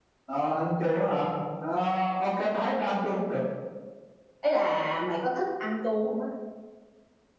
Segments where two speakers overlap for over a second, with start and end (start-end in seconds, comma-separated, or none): none